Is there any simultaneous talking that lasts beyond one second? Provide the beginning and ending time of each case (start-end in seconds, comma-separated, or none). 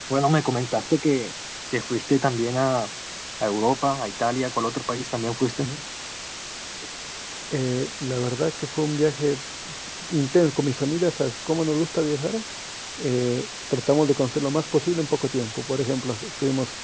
none